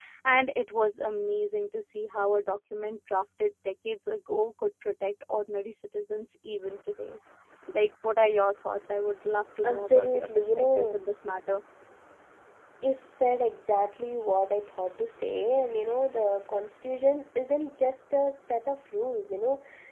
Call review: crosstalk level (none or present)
present